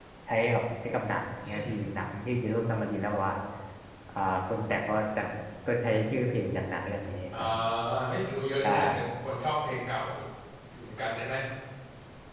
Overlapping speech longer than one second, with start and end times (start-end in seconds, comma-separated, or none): none